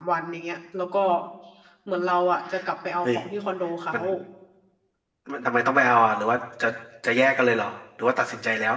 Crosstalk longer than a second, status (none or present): none